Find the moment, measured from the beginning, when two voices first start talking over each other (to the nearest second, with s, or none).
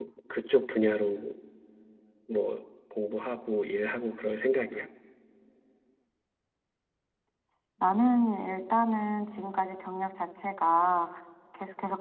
none